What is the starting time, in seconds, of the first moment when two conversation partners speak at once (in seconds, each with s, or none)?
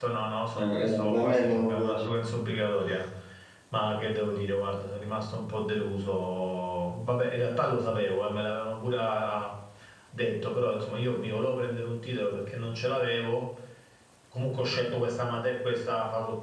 0.6 s